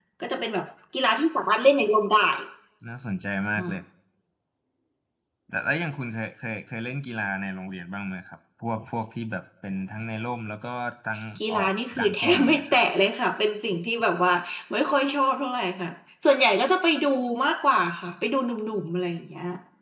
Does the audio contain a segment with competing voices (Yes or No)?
Yes